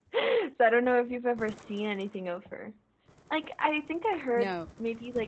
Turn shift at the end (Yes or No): No